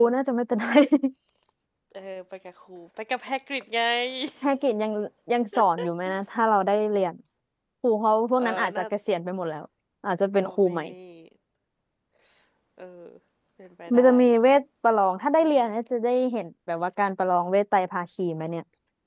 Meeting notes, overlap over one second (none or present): none